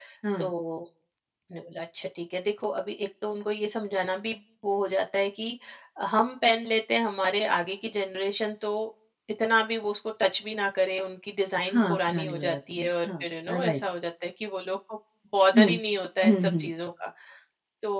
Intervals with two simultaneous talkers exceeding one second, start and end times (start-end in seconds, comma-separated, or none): 11.7-13.8